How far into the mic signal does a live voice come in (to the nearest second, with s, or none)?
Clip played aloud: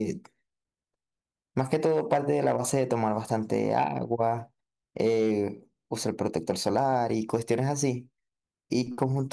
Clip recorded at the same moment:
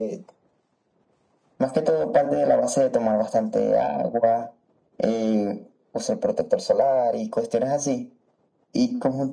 none